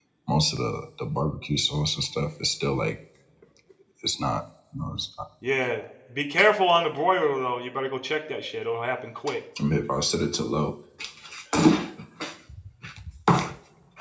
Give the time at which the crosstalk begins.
none

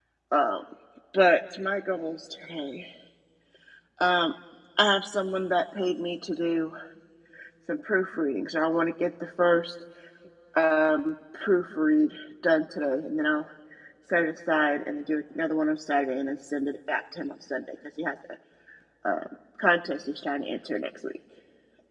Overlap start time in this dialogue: none

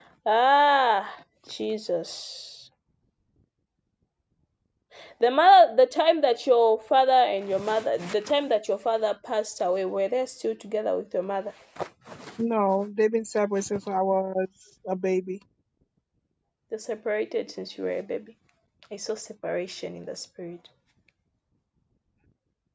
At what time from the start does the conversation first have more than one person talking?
none

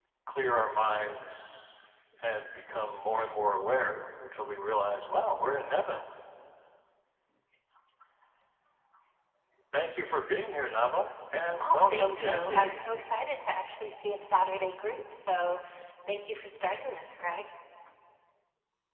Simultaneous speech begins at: 11.6 s

